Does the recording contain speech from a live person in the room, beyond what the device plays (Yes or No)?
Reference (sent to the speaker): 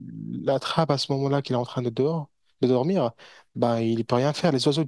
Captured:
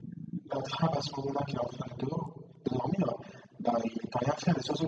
No